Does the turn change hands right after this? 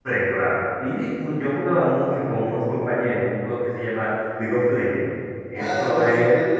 Yes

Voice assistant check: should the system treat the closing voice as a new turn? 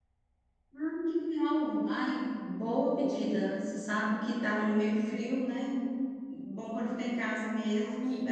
Yes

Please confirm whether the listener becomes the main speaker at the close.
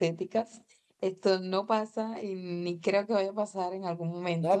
Yes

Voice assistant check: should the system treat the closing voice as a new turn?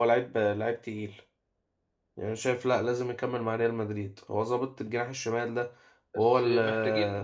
Yes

